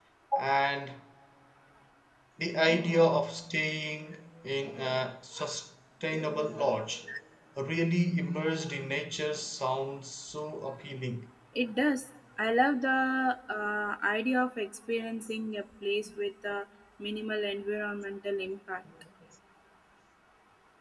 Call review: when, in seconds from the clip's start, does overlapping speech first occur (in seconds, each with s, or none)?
none